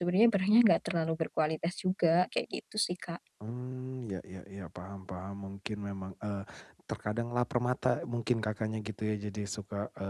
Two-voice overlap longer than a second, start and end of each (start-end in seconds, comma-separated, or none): none